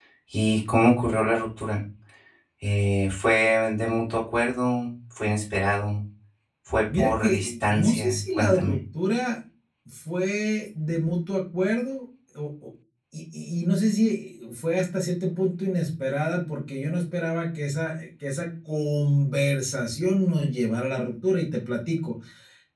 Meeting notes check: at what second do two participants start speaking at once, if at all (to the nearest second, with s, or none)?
7 s